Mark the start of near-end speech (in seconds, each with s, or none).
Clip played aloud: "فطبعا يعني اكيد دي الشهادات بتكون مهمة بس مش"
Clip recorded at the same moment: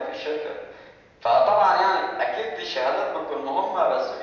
none